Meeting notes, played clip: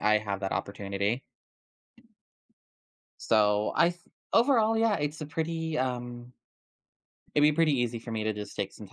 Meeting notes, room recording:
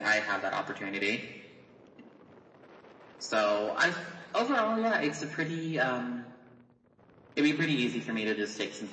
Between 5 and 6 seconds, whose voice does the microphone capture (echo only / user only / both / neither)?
echo only